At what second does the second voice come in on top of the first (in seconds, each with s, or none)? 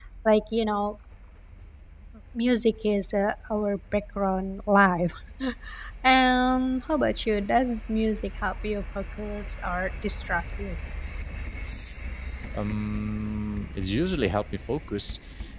none